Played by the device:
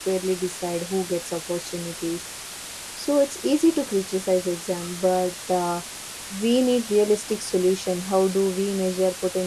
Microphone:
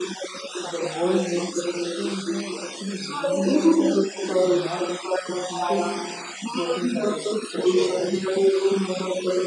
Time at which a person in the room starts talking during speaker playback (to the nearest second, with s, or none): 1 s